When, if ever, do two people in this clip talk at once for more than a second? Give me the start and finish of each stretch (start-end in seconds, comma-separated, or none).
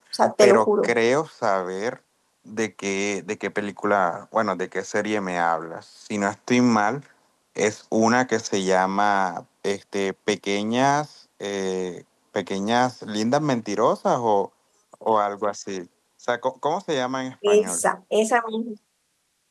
none